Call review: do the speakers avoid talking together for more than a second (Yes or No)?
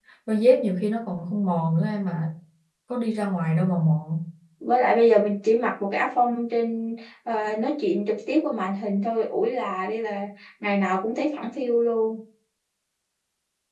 Yes